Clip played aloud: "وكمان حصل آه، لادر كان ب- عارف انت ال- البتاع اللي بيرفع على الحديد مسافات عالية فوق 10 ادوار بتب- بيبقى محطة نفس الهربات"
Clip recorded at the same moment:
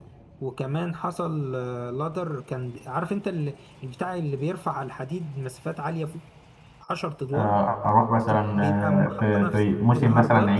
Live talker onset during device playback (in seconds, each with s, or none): 7.3 s